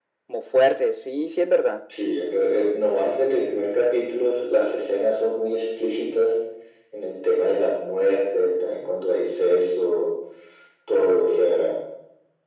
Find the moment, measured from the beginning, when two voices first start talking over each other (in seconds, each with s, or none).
none